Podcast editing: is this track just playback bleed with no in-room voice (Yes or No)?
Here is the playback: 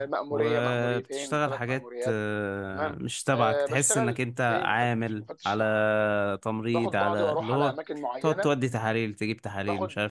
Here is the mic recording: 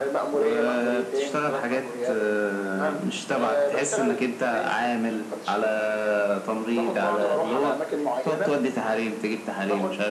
Yes